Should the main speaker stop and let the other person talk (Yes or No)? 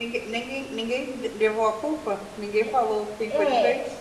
Yes